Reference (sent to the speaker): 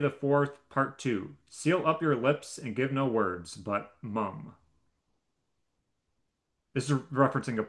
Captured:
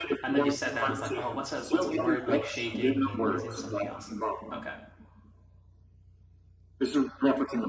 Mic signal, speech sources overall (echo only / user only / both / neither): both